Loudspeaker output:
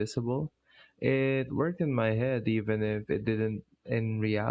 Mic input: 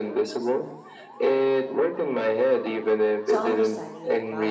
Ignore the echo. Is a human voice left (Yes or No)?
Yes